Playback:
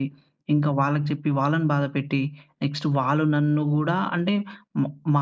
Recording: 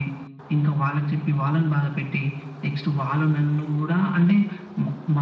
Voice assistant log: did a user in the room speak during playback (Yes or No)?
No